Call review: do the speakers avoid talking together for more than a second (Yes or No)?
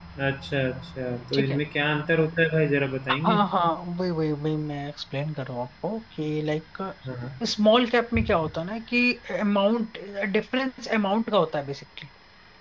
Yes